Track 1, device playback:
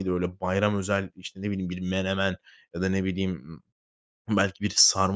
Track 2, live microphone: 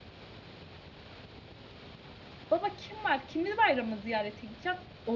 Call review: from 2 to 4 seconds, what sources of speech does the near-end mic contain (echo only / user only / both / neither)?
user only